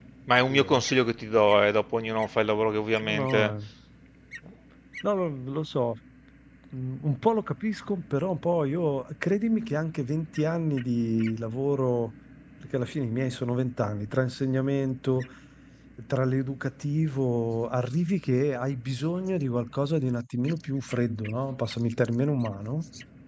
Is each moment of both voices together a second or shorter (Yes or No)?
Yes